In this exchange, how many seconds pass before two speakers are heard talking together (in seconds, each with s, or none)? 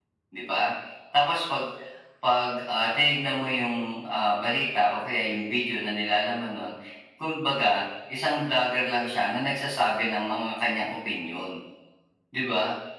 none